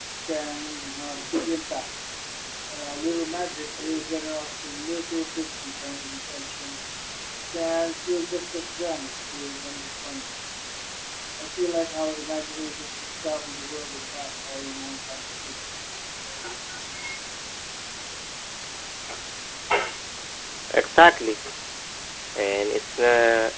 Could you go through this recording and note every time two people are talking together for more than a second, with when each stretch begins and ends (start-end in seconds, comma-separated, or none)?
none